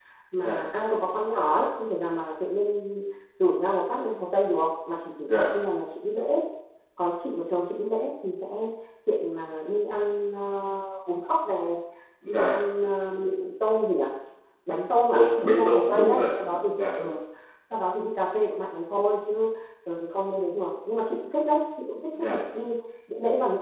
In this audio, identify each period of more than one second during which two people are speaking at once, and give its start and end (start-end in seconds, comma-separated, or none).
15.1-16.3